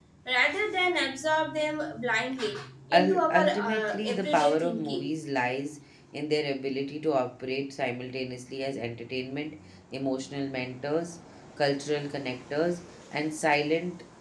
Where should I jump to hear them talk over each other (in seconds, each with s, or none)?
2.9 s